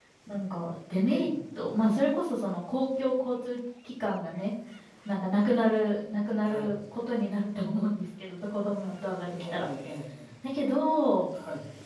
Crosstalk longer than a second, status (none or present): none